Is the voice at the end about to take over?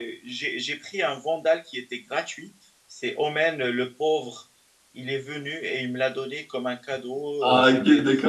Yes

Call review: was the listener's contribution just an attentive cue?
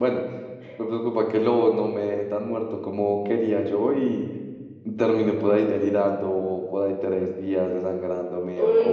No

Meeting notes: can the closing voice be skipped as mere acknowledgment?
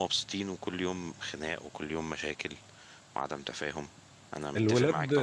No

